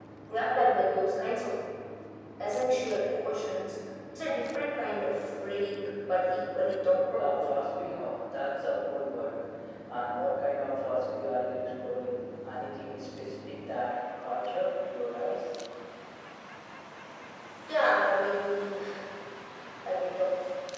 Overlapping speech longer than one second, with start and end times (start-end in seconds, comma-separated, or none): none